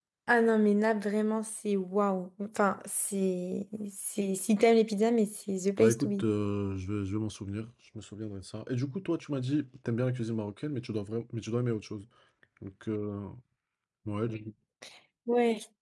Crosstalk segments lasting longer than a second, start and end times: none

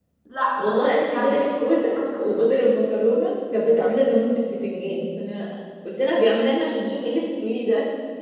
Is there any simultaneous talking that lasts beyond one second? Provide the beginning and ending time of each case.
1.0-2.4

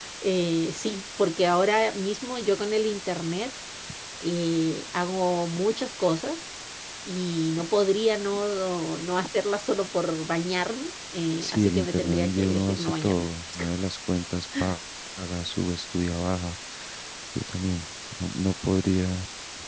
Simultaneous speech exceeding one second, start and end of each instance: 11.4-13.3

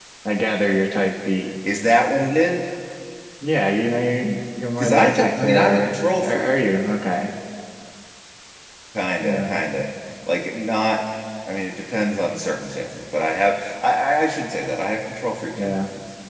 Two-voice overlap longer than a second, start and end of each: 4.8-6.6

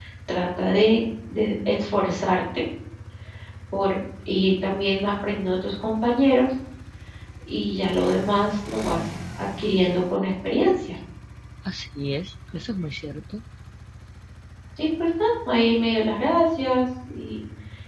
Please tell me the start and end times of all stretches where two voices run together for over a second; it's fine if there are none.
none

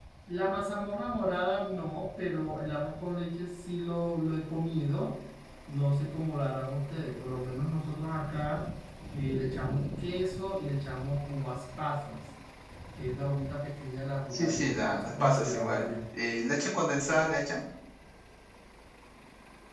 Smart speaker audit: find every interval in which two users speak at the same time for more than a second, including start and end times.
14.3-15.8

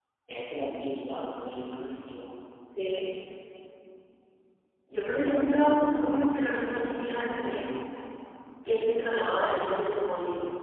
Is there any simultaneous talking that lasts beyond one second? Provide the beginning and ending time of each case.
none

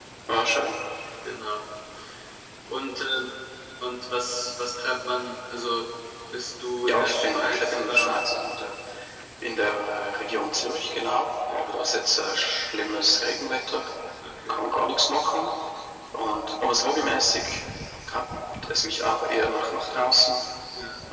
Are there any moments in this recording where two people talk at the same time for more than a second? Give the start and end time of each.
6.8-8.3

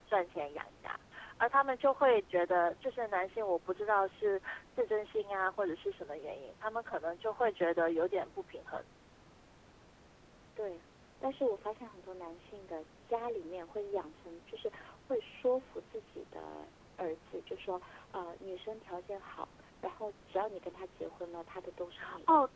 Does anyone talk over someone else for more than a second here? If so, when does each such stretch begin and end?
none

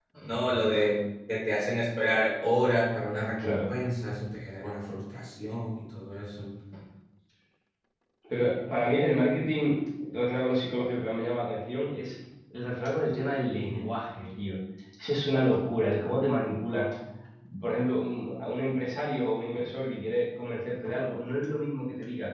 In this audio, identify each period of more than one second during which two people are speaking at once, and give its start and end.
none

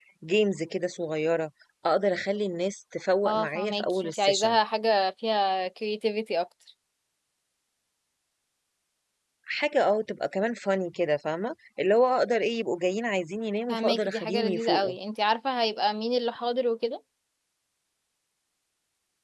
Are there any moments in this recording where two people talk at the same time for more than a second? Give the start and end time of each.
3.3-4.5, 13.7-14.9

